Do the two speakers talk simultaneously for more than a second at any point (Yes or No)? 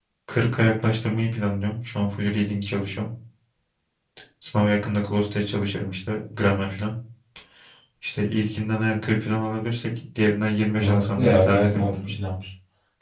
Yes